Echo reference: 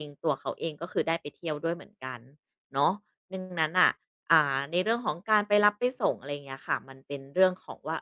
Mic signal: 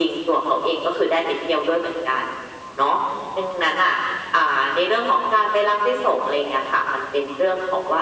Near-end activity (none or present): none